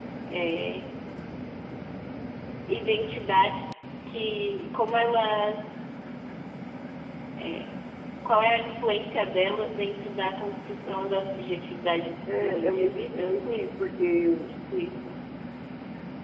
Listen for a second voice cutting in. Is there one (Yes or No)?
Yes